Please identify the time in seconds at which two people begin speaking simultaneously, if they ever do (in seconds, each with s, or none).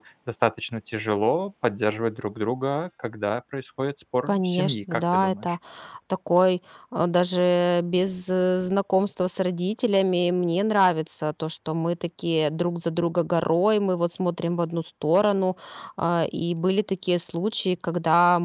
4.3 s